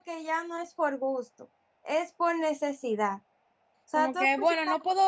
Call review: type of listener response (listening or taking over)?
taking over